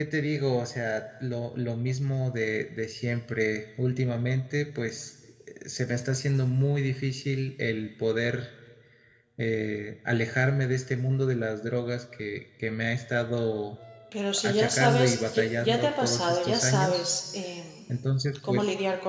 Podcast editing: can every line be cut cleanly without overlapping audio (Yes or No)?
No